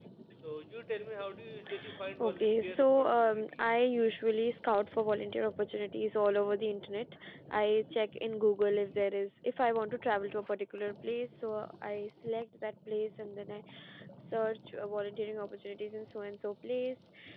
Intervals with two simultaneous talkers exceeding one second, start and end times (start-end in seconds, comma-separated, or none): 2.2-3.9